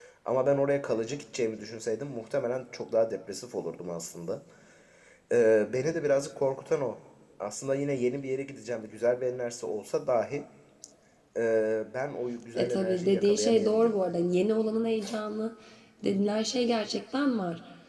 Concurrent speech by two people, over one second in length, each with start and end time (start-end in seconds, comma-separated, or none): 12.6-14.0